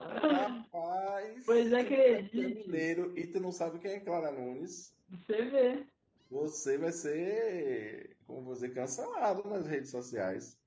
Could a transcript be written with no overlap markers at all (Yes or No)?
No